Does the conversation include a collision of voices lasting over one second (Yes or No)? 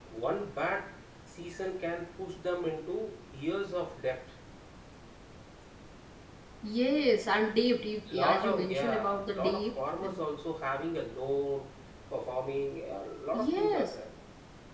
Yes